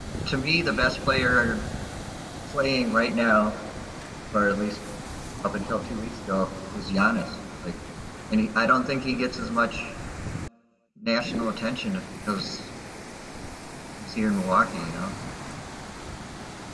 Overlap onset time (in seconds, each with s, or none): none